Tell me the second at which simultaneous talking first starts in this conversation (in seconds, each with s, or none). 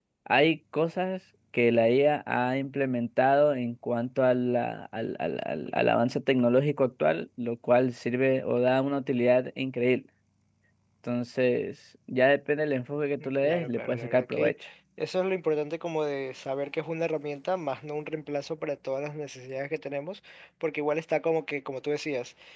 13.2 s